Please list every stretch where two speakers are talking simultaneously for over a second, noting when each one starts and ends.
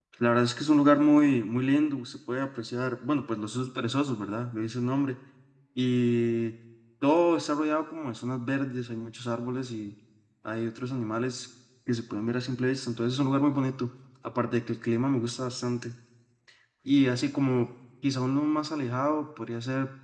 none

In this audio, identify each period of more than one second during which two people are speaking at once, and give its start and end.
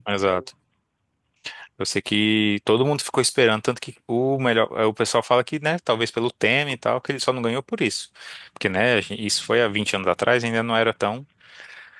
none

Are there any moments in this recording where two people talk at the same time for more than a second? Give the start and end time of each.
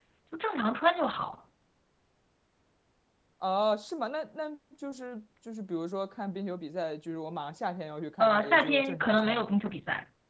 8.2-9.5

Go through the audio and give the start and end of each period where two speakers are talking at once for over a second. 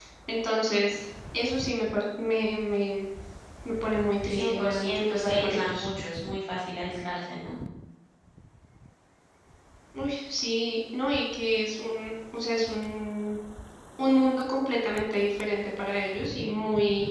4.3-5.9

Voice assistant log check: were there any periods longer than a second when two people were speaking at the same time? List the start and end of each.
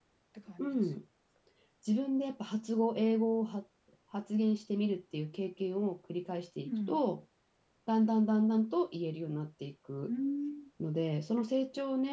none

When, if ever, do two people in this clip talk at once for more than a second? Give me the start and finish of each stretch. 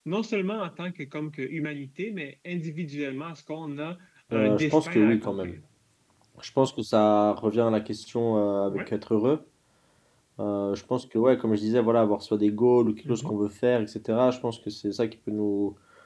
4.3-5.6

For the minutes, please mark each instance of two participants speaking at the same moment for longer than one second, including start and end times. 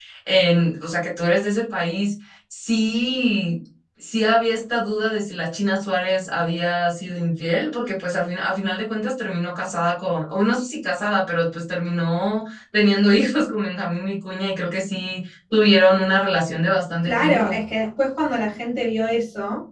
none

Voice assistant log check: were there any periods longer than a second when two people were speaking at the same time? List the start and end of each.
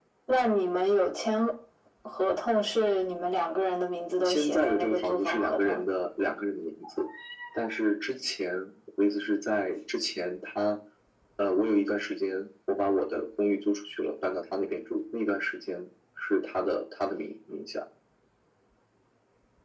4.2-5.8

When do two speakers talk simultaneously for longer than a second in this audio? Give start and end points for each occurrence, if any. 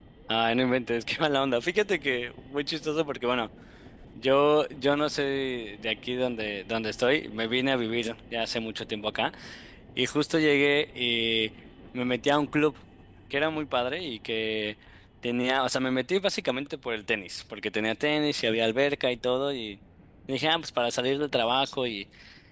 none

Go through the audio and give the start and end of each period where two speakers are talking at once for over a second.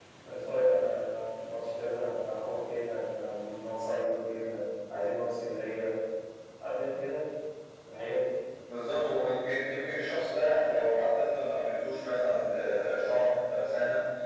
none

